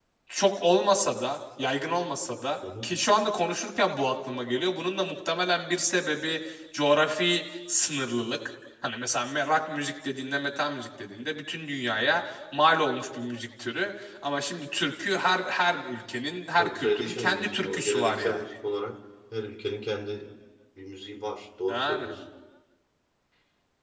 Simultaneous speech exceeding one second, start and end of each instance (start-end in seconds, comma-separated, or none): 16.6-18.4